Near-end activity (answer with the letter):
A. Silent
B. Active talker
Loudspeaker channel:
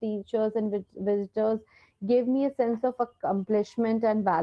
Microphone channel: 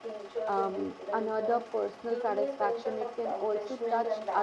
B